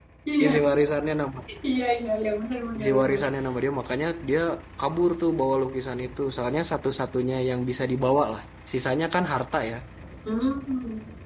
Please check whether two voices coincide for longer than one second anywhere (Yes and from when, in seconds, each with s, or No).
No